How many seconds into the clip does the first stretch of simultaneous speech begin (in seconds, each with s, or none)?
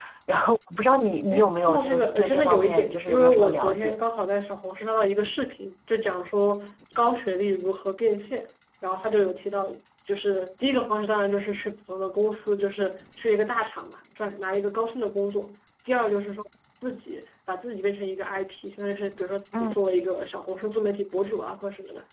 1.3 s